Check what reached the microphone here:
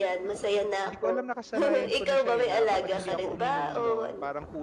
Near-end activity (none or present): present